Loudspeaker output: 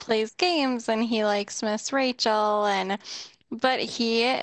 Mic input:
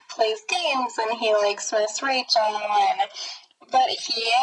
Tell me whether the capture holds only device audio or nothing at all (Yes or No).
Yes